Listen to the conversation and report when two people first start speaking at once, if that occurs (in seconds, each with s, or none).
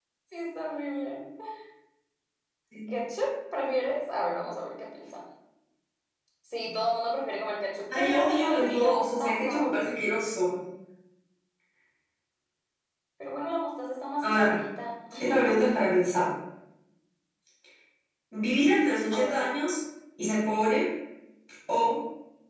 7.9 s